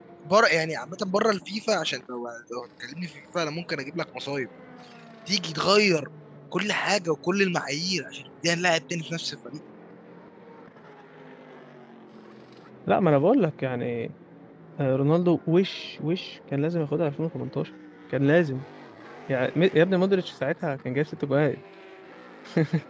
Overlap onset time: none

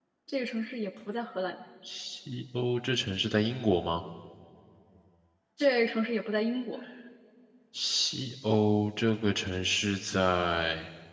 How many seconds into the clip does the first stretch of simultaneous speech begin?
none

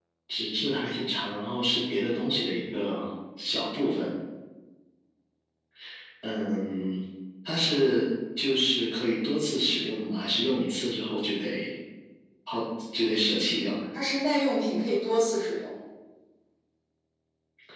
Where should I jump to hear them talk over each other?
none

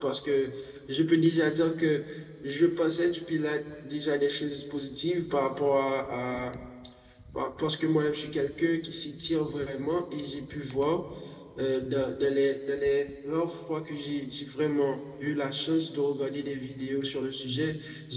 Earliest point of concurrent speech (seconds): none

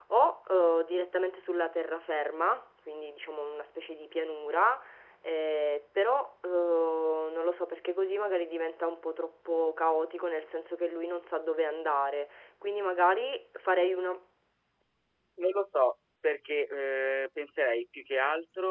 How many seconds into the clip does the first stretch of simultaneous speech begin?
none

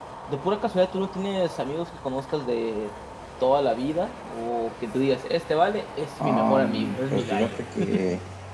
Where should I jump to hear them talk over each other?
6.2 s

